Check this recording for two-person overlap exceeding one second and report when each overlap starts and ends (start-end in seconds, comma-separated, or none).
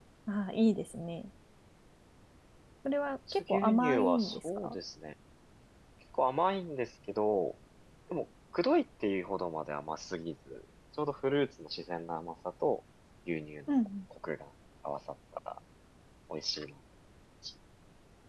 3.4-4.8